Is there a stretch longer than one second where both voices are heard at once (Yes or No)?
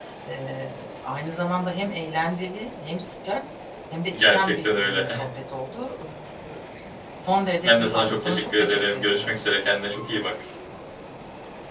Yes